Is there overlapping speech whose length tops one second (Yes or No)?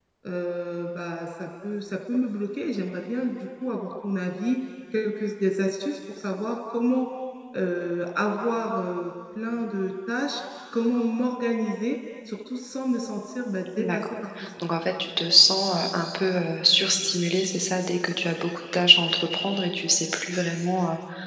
No